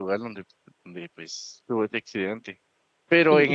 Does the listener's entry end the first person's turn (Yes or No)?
No